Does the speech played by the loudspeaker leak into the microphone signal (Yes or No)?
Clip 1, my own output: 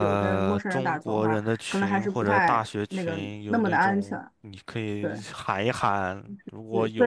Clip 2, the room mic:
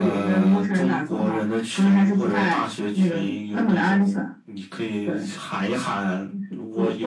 Yes